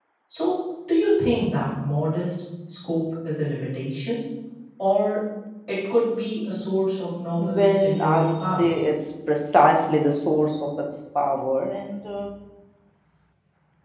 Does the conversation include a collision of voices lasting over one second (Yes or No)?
Yes